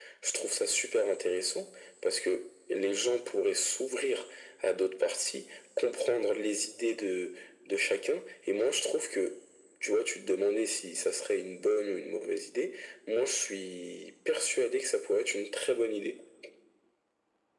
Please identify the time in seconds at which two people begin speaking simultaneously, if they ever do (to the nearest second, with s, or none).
none